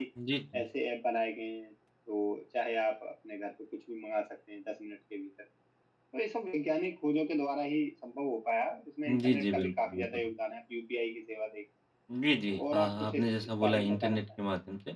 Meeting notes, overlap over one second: present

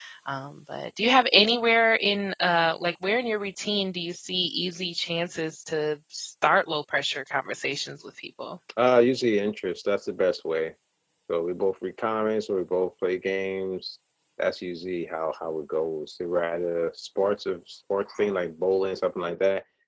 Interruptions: none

